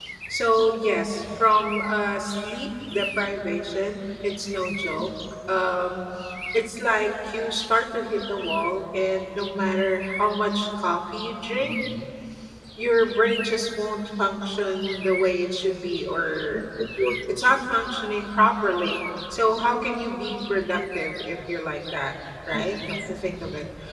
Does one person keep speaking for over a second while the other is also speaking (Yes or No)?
No